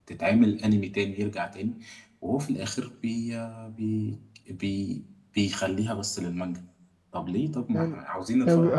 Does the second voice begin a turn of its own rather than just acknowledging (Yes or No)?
Yes